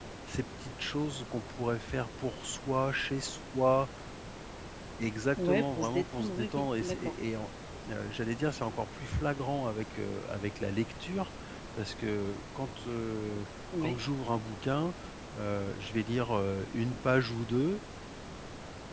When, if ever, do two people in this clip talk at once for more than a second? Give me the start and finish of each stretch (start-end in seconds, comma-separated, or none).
5.4-7.1